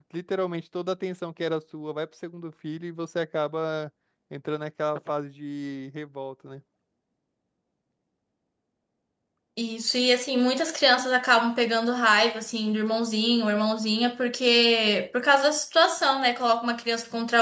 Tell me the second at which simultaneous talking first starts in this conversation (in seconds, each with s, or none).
none